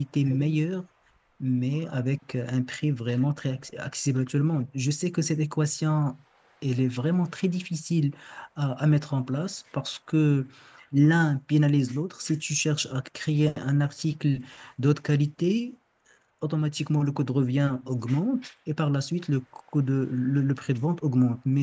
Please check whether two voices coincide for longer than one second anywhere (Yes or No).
No